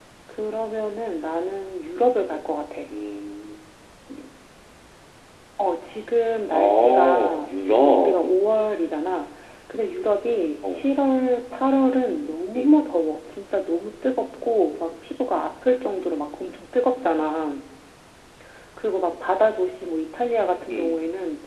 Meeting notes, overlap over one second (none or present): present